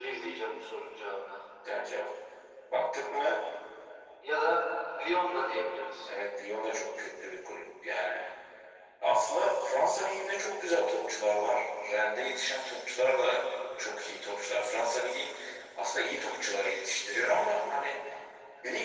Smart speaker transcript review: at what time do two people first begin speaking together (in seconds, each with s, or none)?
none